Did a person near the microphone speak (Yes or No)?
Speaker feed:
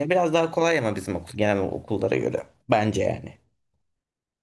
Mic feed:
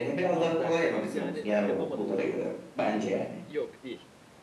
Yes